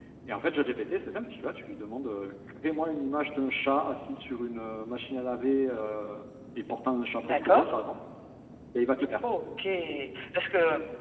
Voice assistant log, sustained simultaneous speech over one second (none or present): none